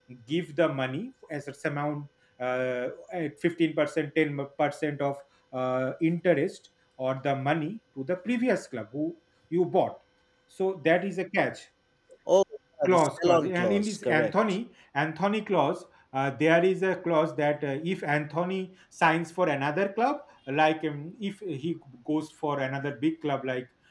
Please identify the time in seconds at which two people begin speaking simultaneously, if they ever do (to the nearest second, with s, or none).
13 s